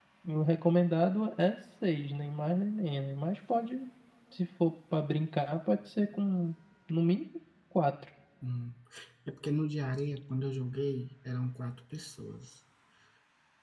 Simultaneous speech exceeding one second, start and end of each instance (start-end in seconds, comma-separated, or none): none